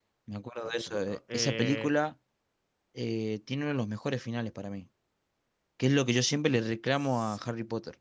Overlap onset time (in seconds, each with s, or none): 0.6 s